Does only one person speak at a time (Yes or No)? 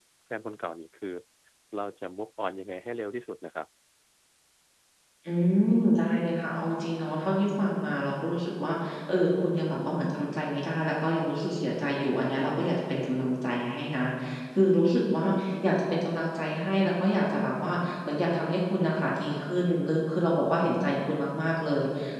Yes